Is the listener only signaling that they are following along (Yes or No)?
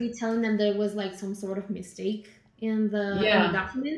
Yes